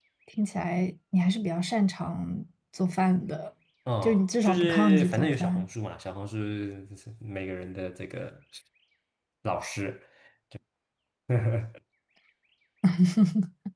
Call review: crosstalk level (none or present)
present